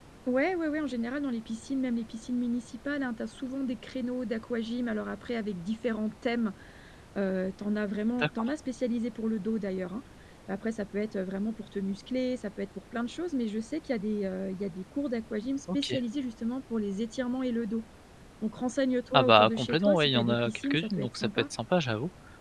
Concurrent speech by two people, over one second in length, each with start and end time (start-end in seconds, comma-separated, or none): 19.1-21.3